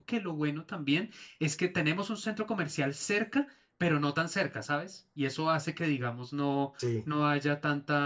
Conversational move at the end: listening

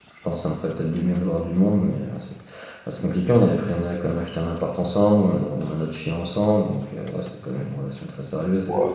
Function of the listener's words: taking over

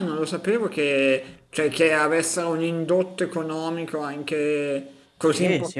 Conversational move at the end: taking over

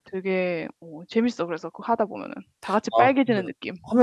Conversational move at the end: taking over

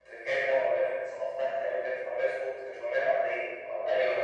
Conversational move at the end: taking over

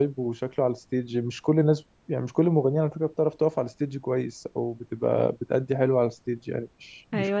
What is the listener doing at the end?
taking over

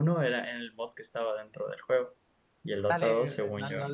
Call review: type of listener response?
taking over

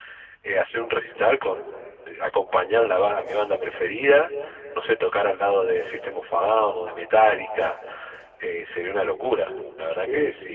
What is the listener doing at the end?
taking over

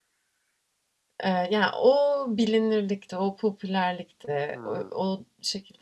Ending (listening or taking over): listening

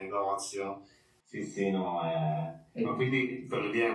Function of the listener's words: listening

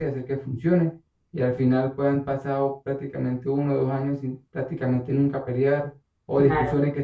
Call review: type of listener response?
listening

